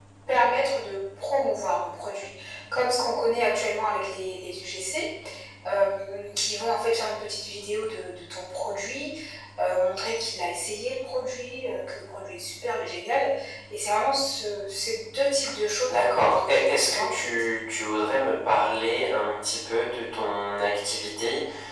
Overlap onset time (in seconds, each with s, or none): 15.9 s